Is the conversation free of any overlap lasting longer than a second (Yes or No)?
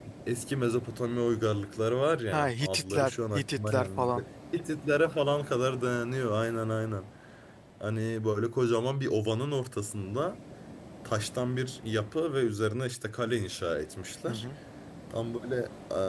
No